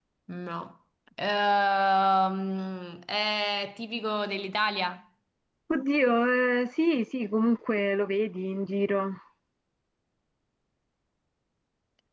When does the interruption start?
none

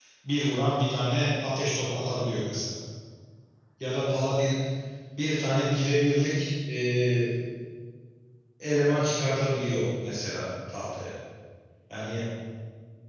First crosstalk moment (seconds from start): none

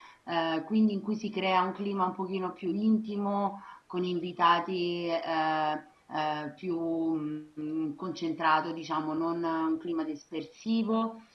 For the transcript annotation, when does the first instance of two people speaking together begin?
none

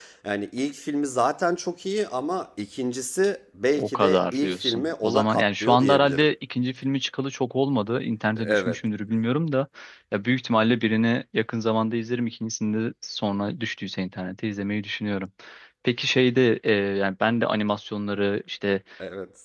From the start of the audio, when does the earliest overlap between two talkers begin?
3.8 s

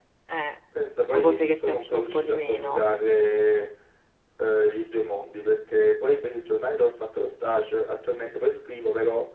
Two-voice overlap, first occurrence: 1.1 s

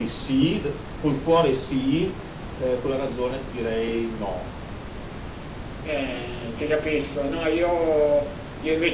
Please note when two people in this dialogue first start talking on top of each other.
none

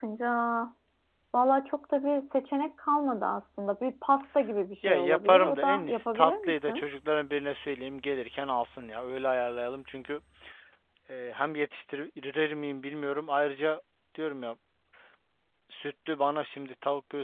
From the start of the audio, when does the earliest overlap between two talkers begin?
4.8 s

